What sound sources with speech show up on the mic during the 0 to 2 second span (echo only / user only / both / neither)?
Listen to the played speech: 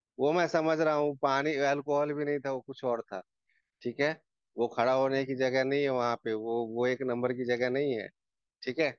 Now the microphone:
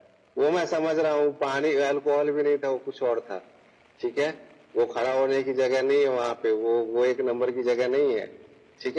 echo only